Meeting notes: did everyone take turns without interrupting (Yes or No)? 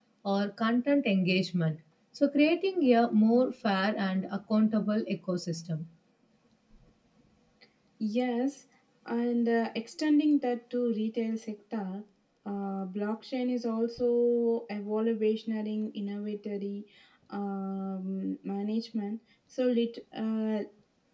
Yes